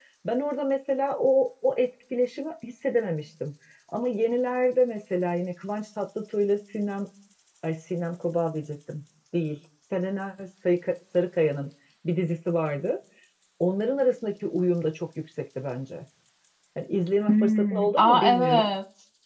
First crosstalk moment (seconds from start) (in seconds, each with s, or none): 17.3 s